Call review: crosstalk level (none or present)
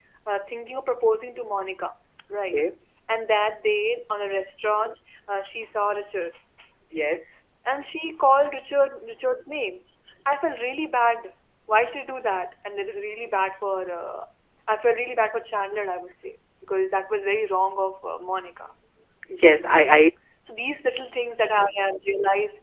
none